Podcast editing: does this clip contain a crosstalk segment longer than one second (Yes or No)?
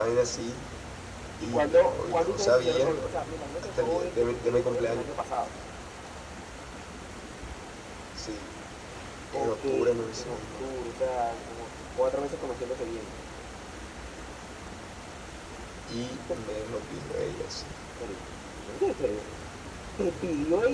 Yes